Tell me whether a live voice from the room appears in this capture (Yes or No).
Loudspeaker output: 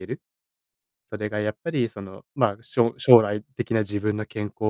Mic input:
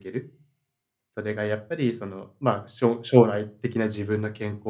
No